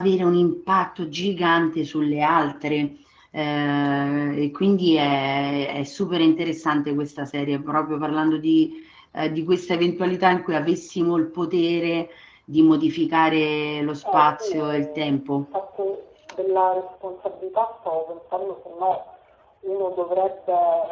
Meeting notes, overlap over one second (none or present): present